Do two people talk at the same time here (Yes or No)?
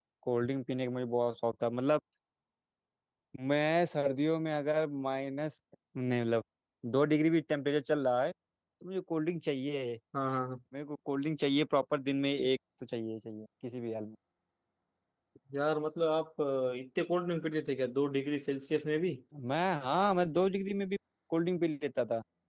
No